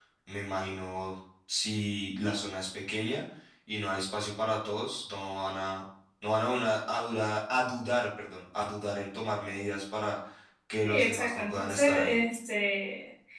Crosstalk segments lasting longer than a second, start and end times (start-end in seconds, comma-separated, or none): 10.8-12.2